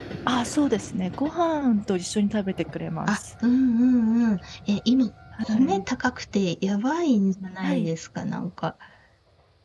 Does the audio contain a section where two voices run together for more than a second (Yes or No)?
No